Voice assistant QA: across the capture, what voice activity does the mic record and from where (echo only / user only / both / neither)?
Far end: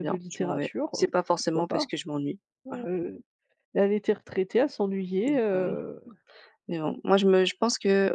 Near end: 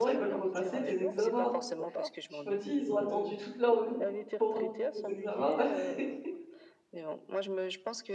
both